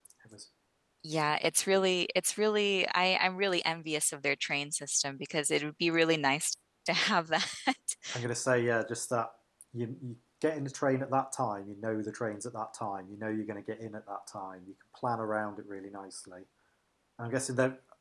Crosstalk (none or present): none